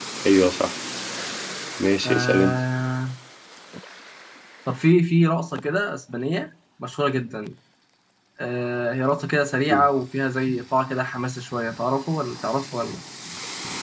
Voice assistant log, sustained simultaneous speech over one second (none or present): none